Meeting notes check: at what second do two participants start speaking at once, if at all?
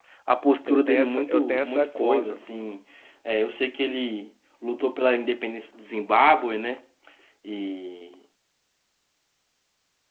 1 s

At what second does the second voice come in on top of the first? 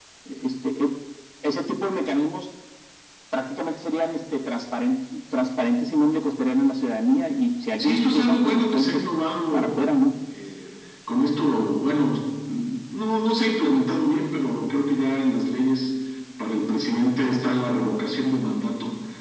8 s

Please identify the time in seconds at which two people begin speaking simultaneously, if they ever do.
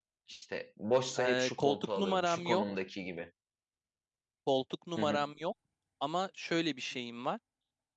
1 s

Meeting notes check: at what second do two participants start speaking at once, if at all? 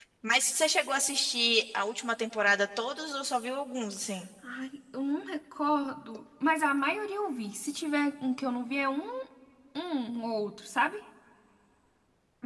none

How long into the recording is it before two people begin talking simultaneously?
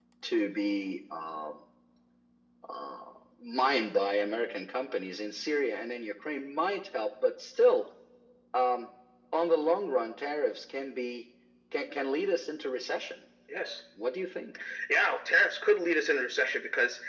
none

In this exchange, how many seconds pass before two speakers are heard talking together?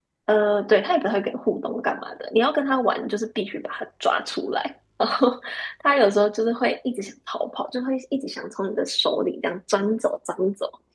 none

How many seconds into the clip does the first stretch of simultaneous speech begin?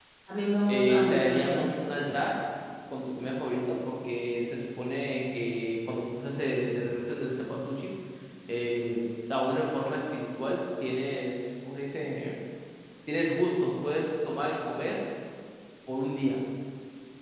1 s

